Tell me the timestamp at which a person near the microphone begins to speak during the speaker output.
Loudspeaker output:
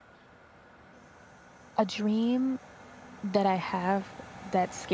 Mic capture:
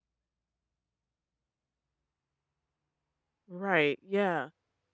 3.5 s

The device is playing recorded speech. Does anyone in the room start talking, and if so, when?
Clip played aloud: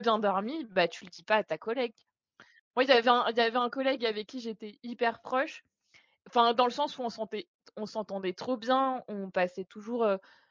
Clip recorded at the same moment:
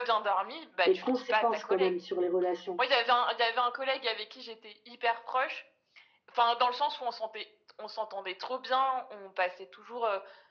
0.8 s

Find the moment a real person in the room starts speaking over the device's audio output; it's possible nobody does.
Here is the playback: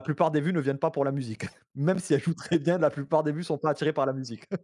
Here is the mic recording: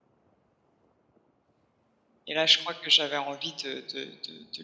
2.3 s

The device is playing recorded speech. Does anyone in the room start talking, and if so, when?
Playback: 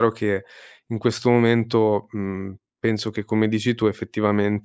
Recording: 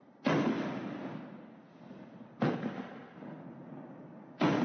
none

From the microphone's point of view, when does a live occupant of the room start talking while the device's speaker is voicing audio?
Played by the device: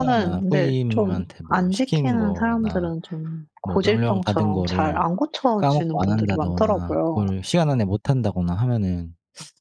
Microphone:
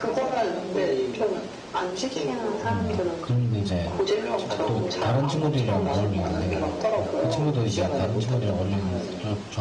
2.6 s

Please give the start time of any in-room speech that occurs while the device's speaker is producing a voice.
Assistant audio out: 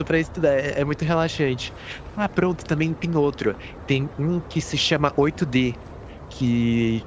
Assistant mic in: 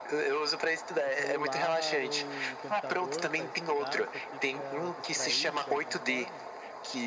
1.0 s

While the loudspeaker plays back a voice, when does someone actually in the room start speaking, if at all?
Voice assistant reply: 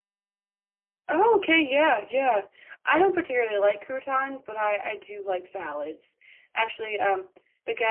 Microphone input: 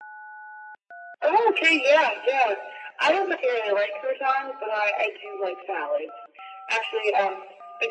none

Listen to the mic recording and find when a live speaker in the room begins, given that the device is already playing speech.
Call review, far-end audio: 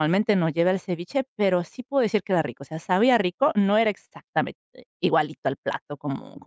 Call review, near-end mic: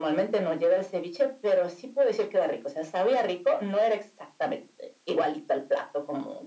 none

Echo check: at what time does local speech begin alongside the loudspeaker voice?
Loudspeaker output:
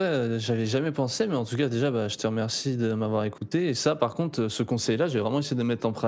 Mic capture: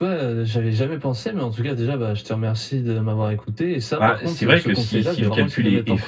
4.0 s

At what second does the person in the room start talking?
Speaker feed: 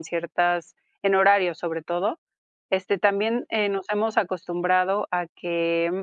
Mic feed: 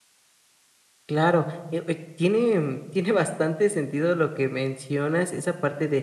1.1 s

